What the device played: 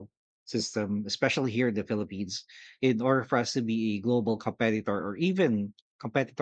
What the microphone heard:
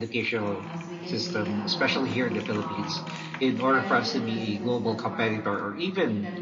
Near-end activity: present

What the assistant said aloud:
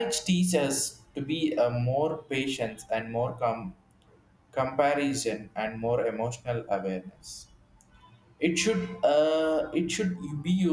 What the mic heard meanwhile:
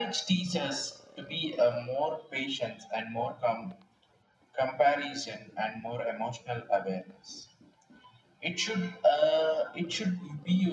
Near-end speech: none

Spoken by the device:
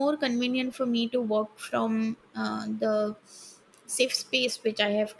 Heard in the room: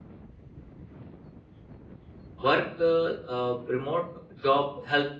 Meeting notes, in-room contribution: present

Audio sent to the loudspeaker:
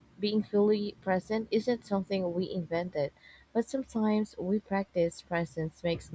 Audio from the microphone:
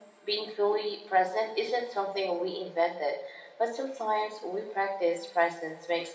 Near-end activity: none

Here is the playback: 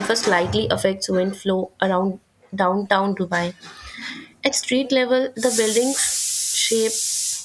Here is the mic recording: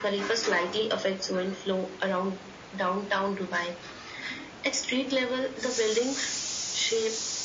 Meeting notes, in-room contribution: none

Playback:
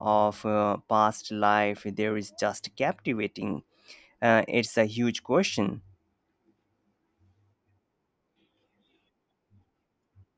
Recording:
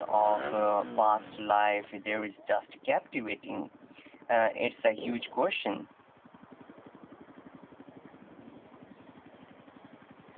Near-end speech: none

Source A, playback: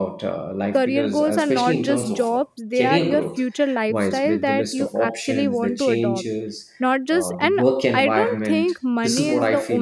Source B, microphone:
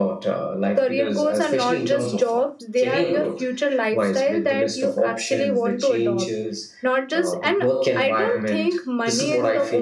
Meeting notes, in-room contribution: none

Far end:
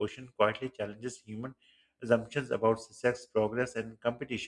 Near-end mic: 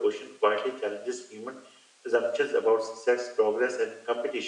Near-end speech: none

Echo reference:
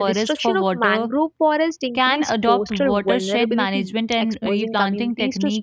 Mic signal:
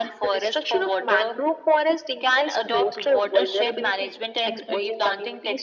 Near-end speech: none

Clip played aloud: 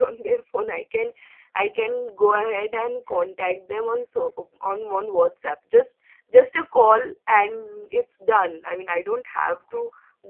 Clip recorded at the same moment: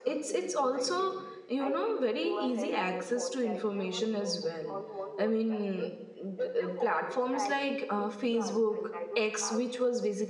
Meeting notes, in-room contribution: present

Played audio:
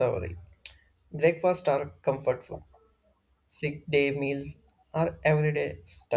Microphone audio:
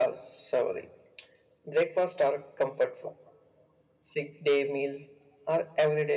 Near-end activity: none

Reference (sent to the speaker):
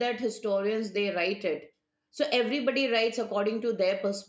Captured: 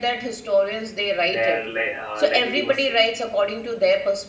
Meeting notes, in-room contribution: present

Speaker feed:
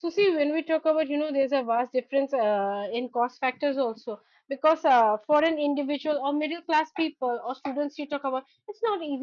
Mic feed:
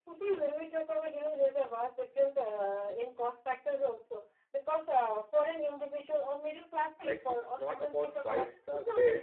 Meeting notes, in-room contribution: present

